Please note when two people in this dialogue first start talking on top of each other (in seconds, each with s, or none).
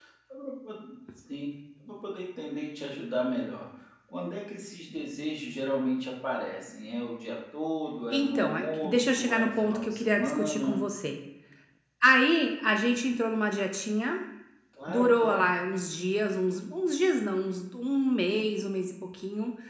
8.1 s